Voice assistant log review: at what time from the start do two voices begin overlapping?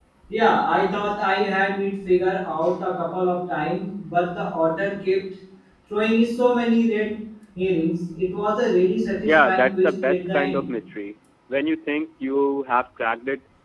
9.3 s

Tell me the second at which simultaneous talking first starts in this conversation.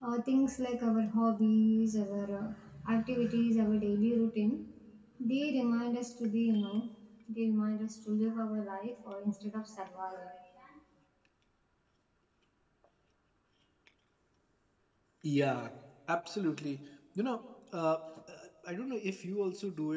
none

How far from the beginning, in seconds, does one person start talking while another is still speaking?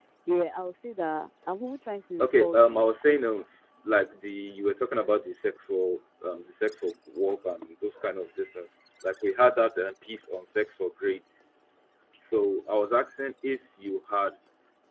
2.2 s

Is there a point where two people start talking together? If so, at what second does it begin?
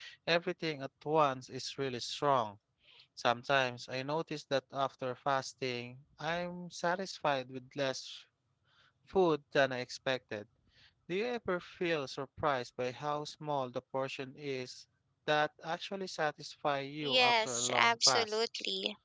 17.0 s

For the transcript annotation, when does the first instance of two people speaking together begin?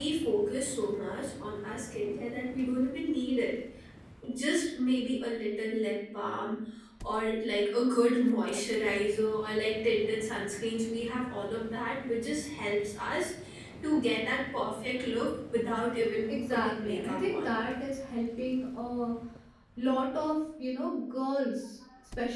16.3 s

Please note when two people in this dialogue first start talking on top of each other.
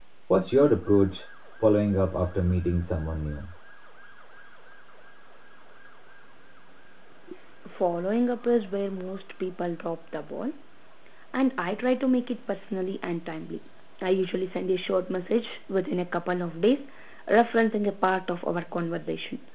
none

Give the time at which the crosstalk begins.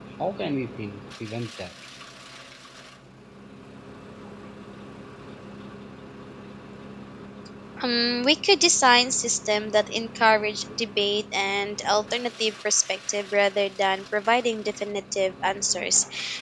none

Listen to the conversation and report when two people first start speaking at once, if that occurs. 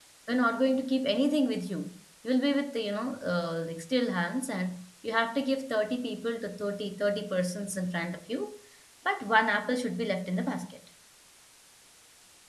none

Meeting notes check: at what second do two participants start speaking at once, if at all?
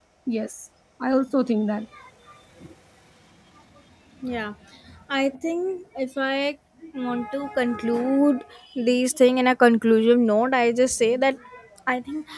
none

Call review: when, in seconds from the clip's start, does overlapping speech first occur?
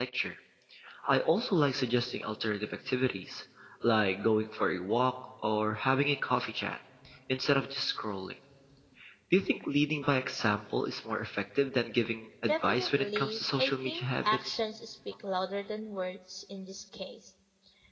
12.4 s

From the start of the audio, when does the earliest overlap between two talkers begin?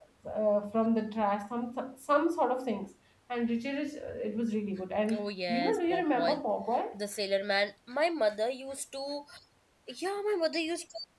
5.1 s

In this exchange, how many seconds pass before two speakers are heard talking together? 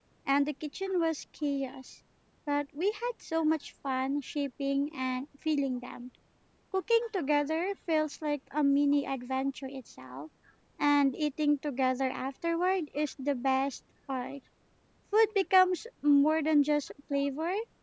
none

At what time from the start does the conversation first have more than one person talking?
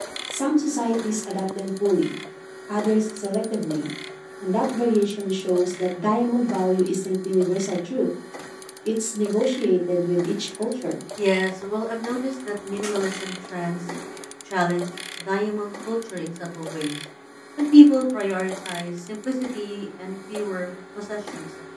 none

